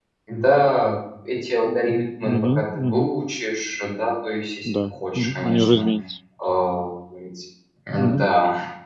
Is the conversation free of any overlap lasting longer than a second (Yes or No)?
No